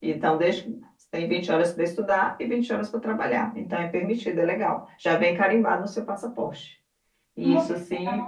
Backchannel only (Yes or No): No